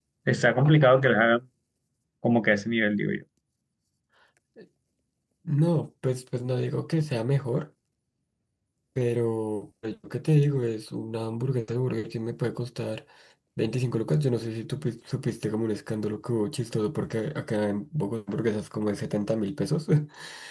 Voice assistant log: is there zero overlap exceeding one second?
Yes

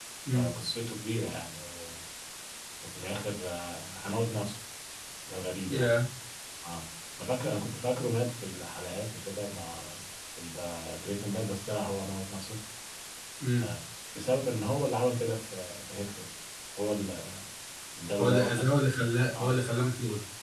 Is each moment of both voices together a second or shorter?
Yes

